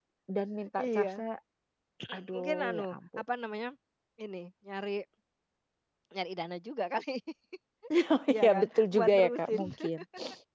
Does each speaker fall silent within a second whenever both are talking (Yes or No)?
No